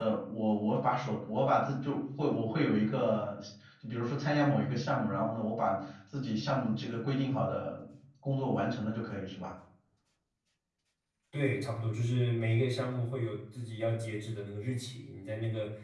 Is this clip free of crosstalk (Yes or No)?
Yes